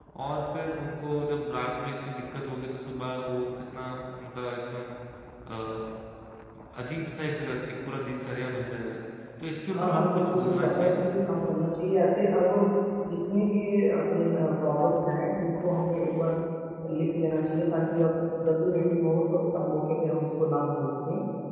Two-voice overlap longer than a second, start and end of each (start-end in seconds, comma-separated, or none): 9.7-11.0